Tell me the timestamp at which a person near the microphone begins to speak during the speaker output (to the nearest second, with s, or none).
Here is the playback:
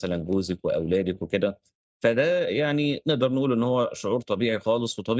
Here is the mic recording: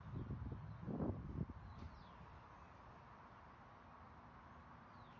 none